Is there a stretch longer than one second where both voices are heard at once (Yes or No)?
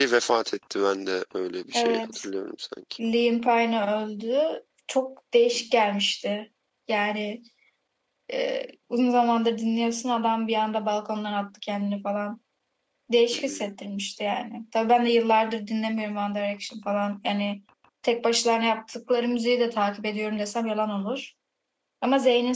No